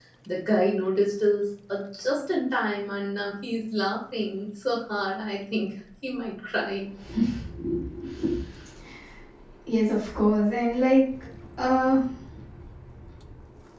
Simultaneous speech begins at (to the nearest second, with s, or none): none